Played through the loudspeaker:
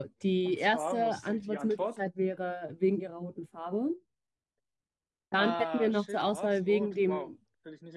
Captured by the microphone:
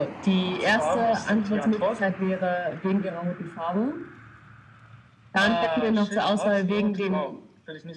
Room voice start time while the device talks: none

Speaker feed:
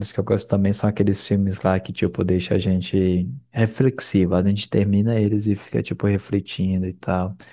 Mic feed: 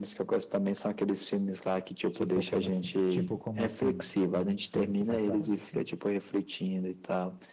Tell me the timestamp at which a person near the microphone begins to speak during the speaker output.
2.1 s

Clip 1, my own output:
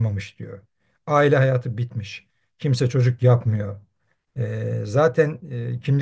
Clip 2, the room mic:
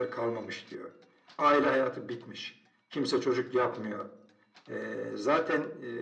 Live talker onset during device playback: none

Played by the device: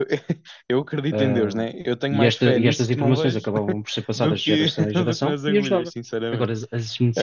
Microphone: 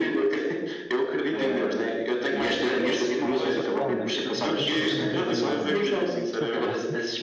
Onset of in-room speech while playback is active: 3.5 s

